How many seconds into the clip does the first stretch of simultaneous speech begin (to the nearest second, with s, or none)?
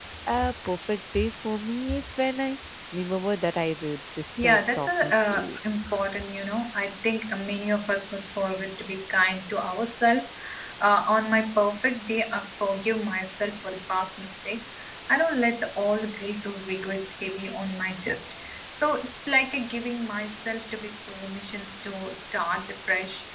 4 s